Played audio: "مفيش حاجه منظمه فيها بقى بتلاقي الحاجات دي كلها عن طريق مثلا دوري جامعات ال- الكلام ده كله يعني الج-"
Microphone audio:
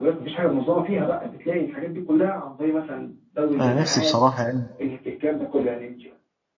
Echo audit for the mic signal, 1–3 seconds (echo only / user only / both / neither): echo only